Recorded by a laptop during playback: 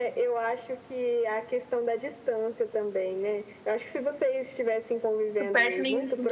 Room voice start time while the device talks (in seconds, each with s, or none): 5.4 s